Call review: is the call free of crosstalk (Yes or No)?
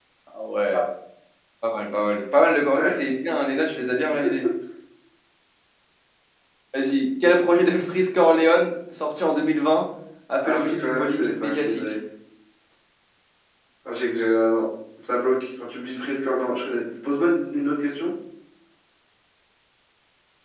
No